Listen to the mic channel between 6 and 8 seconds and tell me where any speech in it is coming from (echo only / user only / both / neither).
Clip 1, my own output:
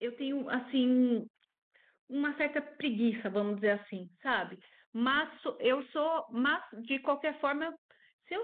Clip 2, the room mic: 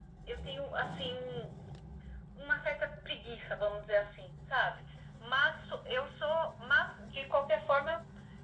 echo only